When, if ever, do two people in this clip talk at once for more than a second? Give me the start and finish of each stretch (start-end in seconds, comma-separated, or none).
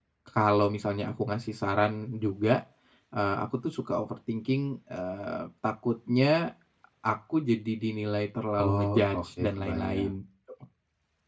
8.6-10.1